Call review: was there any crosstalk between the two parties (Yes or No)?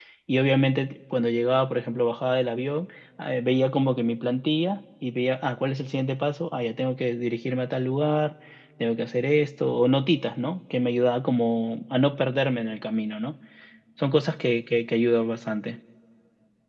No